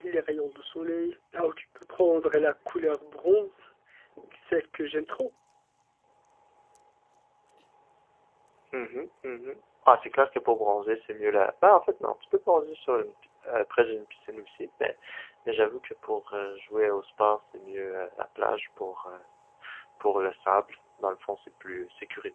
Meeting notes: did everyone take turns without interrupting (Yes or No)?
Yes